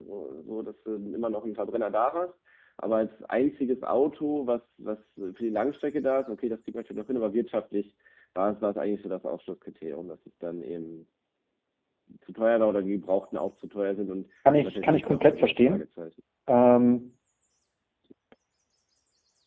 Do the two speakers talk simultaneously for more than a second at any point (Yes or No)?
Yes